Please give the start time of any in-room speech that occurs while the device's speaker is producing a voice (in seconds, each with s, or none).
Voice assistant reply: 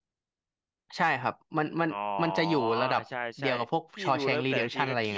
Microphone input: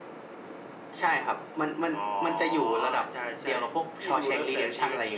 none